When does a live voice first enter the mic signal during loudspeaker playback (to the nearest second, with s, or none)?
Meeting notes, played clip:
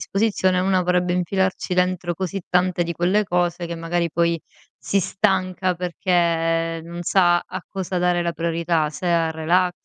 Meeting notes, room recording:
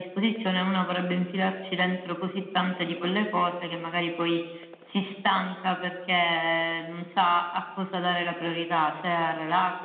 none